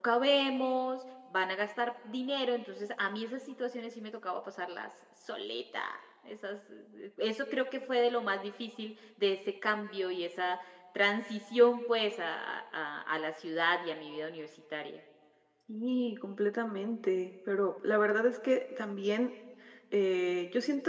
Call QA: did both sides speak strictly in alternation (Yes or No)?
Yes